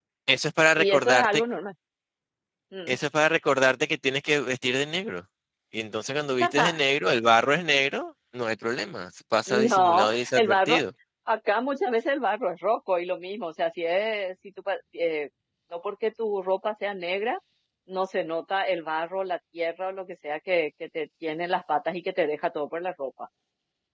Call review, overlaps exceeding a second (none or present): present